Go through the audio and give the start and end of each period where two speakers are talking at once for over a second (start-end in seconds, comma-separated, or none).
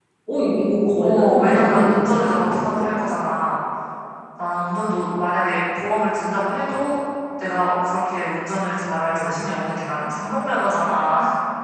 1.0-2.8